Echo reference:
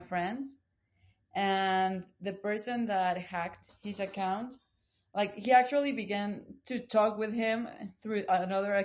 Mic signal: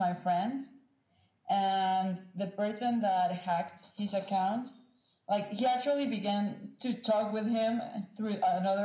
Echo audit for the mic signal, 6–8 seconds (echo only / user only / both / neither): echo only